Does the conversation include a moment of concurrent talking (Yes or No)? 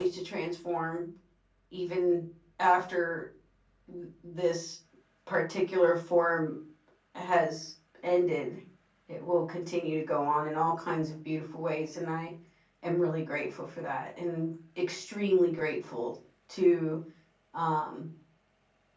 No